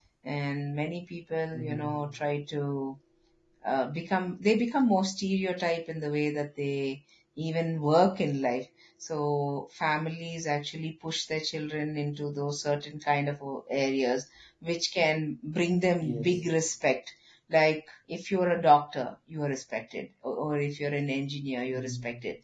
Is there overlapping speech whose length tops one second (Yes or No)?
No